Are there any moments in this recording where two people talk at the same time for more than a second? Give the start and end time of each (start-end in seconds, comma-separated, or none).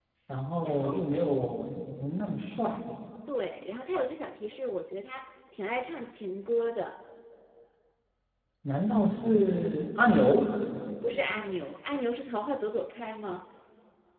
none